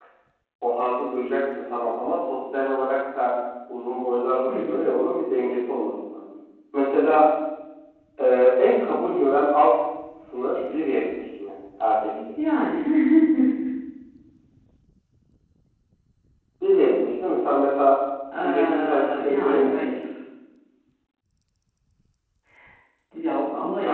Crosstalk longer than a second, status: present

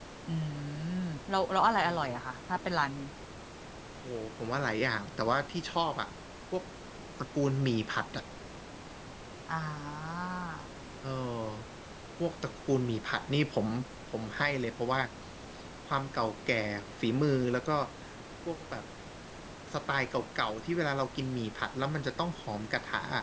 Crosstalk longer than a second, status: none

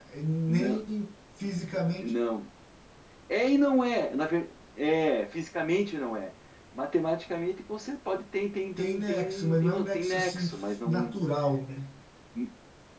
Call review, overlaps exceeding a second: present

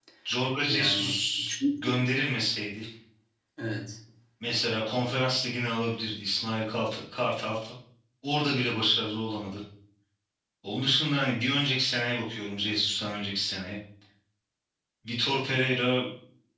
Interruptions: present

